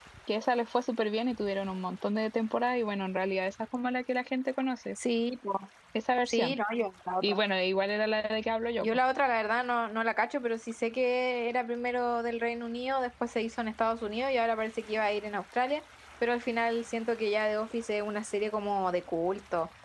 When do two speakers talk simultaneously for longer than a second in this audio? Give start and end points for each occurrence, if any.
none

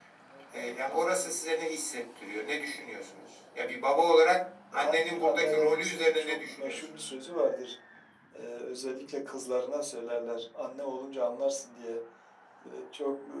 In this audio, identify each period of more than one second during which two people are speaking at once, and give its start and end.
4.7-7.1

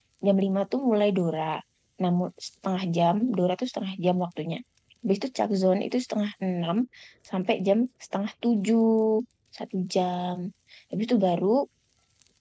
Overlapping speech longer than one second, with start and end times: none

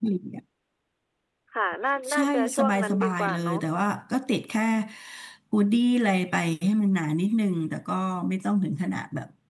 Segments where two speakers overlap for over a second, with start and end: 2.1-3.6

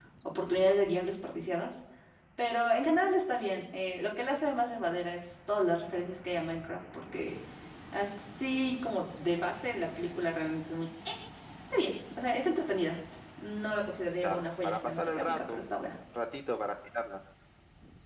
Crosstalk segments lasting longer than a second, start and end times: 14.2-15.8

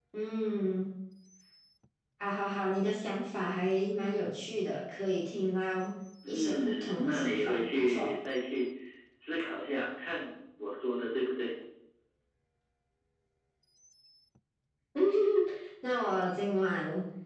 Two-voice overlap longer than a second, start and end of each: 6.3-8.1

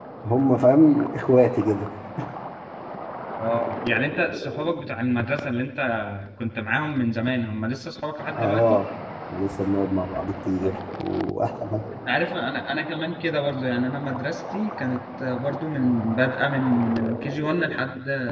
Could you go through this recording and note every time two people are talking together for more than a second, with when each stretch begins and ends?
none

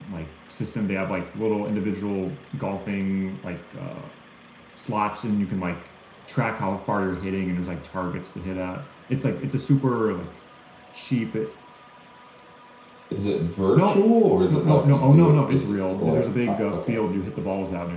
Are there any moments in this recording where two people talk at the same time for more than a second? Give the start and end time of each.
14.5-17.0

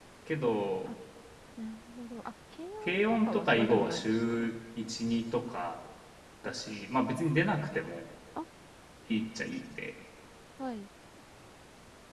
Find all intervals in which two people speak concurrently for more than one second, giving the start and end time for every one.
2.8-4.5

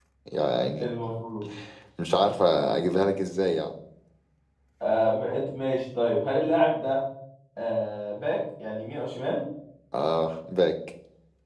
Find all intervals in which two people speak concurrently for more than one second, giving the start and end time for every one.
none

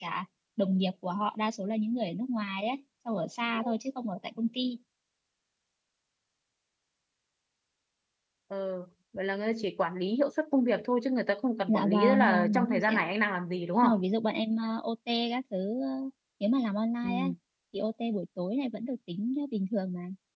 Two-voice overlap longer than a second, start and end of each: 11.7-13.0

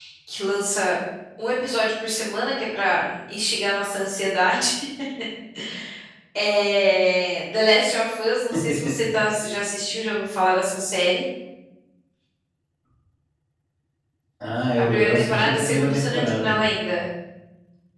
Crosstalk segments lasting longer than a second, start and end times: 14.8-16.6

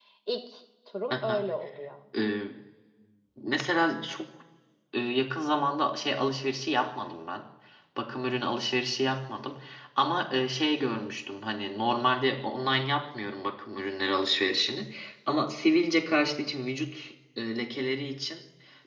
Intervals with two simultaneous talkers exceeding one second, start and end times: none

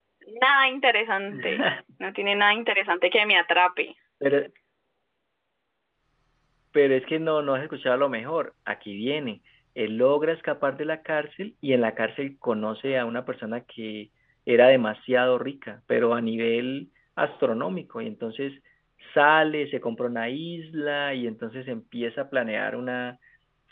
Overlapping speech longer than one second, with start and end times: none

